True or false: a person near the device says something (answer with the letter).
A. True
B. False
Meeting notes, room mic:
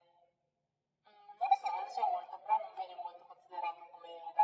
B